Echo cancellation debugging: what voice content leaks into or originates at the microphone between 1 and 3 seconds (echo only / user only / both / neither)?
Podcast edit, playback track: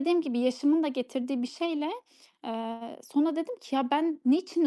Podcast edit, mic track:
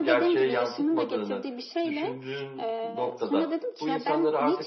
both